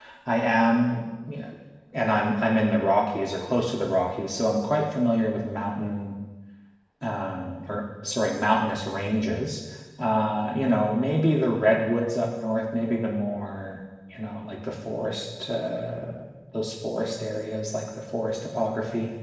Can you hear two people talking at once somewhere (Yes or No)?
No